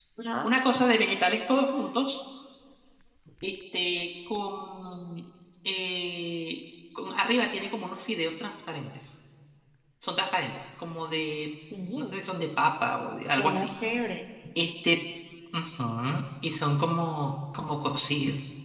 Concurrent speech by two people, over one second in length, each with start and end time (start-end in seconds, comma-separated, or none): none